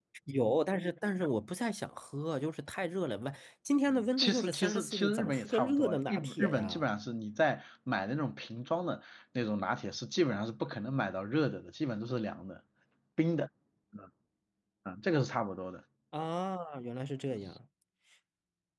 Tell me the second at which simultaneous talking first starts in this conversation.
4.2 s

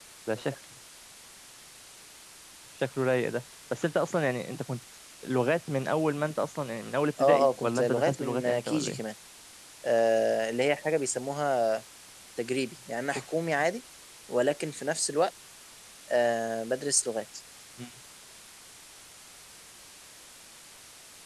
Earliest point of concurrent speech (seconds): 7.2 s

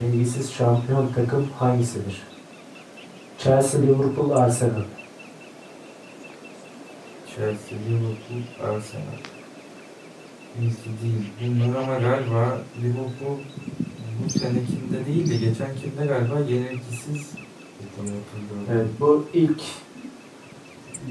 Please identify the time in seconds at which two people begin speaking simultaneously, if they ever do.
none

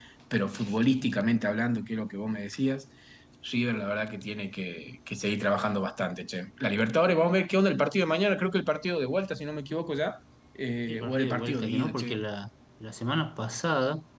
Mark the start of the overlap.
10.9 s

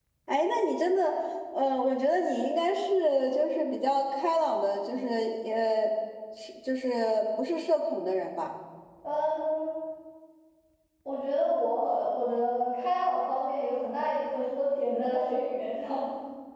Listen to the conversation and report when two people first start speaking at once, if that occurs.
none

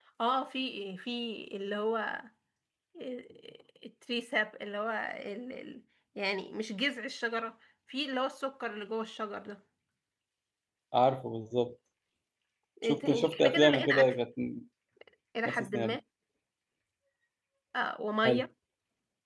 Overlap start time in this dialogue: 12.8 s

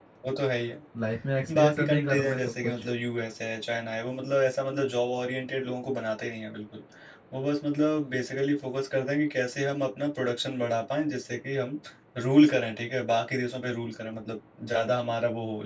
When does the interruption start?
1.5 s

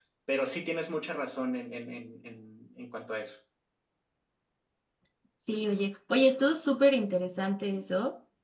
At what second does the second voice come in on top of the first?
none

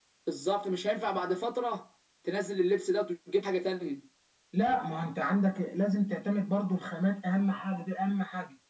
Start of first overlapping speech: none

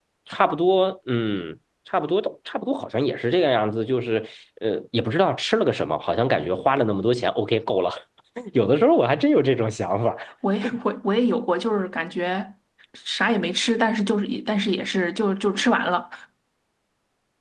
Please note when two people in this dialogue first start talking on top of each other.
none

